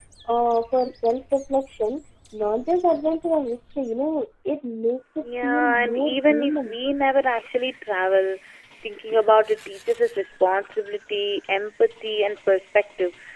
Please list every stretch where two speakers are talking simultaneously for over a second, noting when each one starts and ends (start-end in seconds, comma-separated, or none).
5.4-6.8